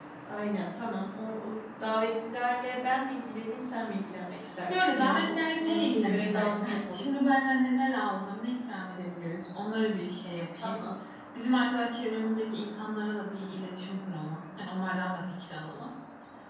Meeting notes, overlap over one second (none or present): present